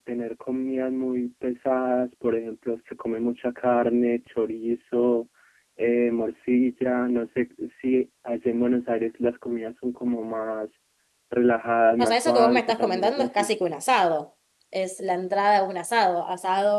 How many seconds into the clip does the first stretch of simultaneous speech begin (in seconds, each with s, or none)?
12.0 s